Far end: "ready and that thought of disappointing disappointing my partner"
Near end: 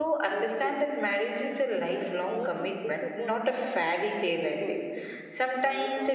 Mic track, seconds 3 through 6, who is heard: both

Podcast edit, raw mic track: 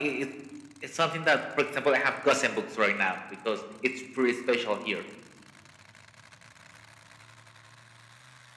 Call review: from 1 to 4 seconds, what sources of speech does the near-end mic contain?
echo only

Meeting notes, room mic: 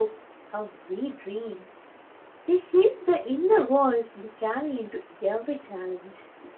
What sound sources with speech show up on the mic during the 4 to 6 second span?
user only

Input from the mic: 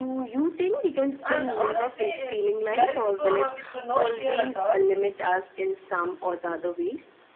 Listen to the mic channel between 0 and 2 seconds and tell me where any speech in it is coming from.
both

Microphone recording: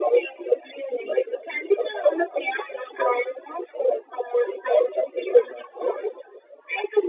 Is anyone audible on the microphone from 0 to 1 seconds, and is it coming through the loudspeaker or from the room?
echo only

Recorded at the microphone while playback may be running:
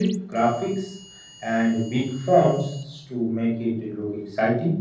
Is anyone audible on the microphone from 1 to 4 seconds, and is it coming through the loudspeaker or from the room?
echo only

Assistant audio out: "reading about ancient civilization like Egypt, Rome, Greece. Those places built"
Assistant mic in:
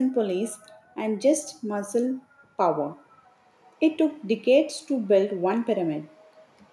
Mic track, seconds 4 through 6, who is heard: user only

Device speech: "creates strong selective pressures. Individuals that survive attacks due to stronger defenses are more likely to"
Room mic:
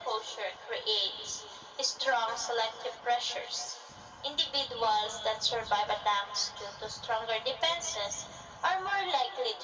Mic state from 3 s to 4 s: echo only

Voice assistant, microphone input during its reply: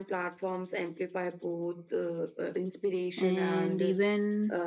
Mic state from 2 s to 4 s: both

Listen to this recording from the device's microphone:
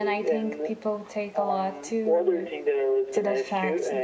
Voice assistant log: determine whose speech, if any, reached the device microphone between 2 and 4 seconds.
both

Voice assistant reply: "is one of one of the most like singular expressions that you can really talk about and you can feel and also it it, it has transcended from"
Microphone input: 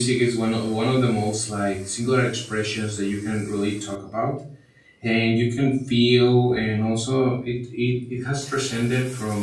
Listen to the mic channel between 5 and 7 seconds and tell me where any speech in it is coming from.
echo only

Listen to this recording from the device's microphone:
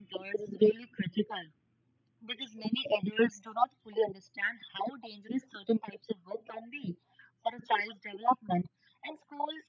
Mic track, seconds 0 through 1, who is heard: echo only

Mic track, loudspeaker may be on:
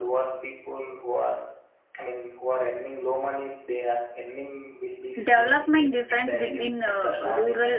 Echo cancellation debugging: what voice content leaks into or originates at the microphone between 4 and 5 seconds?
echo only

